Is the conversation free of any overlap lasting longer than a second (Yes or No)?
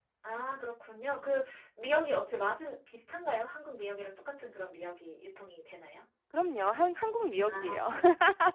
Yes